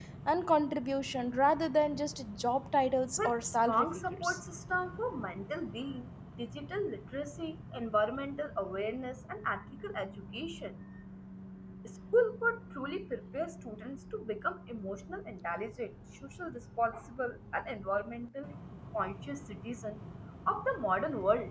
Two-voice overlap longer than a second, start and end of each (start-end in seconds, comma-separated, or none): 3.2-4.4